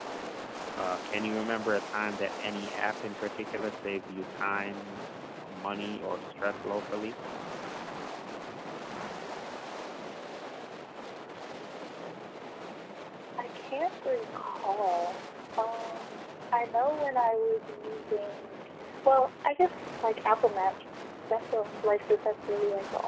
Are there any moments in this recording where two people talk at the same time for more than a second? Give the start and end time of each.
none

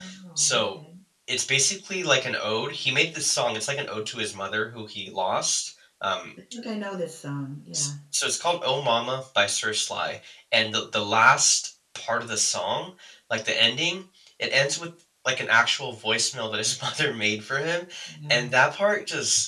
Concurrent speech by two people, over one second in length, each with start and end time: none

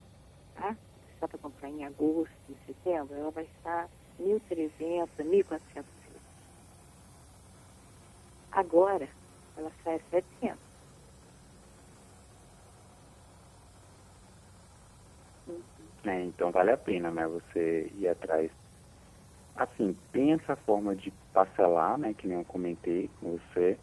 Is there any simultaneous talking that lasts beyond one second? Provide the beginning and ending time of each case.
none

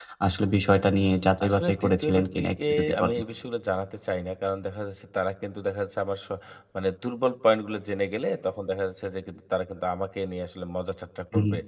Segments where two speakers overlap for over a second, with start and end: 1.4-3.1

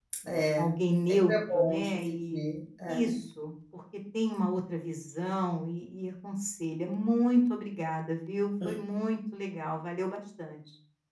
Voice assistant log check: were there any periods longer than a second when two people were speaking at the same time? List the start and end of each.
1.1-2.4

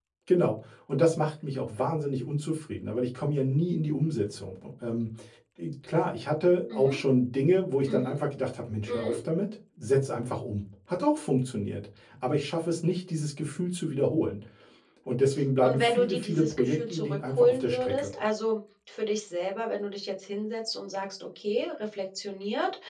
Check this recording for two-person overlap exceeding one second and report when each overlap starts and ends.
15.6-18.1

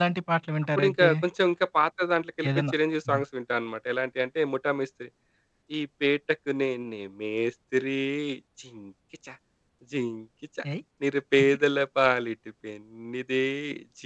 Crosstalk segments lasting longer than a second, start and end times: none

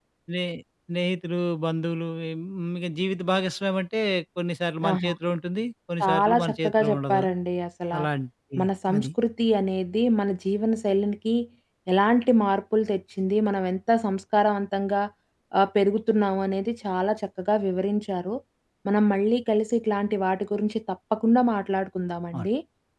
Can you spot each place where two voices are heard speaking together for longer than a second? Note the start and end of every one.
6.0-7.2

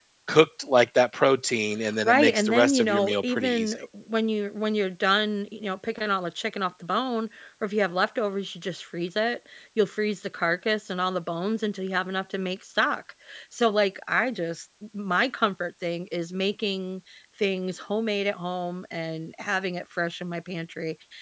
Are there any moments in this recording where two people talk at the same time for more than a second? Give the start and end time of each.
2.0-3.7

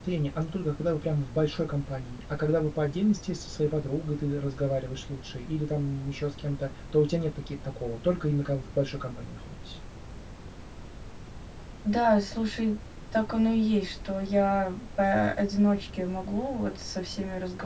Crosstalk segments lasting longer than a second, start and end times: none

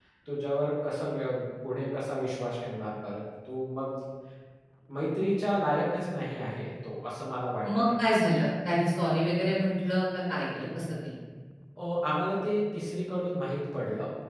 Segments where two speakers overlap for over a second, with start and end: none

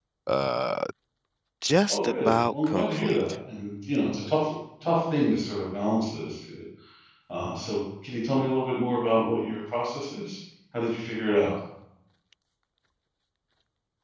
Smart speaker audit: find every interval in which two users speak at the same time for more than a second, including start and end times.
1.9-3.2

